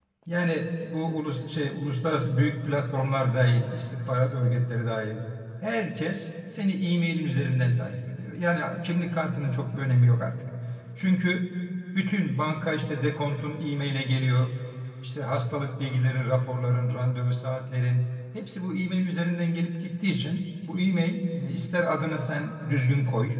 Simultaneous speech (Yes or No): No